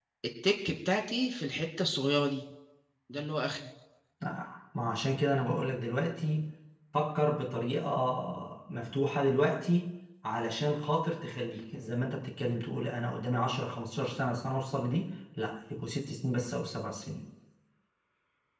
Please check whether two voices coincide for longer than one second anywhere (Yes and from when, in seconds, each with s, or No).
No